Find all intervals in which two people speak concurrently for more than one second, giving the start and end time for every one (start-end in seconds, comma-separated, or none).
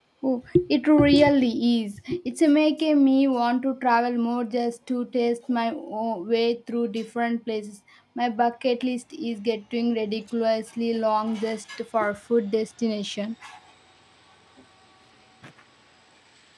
none